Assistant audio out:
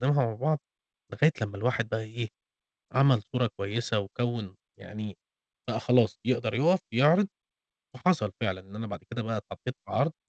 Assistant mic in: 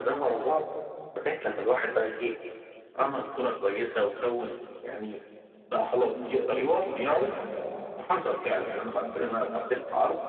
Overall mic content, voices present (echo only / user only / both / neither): echo only